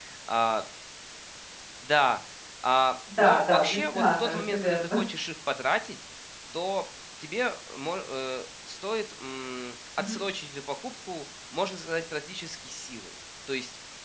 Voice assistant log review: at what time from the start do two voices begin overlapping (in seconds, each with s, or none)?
3.2 s